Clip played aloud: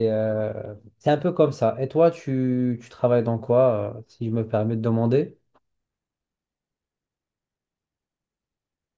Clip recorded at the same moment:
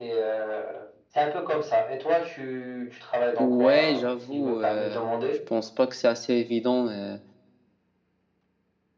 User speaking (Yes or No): Yes